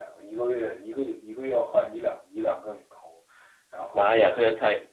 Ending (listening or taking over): taking over